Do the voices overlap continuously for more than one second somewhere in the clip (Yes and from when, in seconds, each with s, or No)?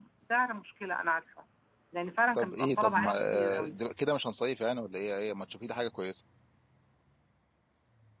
Yes, from 2.3 s